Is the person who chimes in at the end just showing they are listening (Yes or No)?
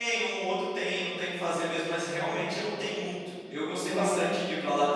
Yes